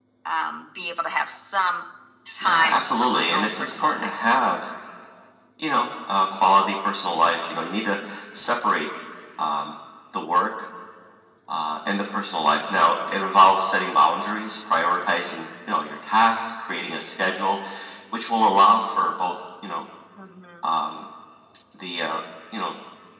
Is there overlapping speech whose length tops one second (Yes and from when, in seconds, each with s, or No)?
Yes, from 2.4 s